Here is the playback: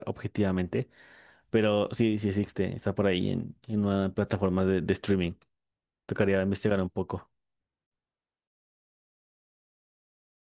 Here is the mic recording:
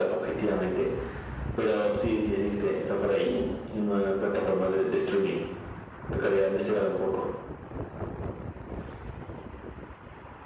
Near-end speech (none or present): none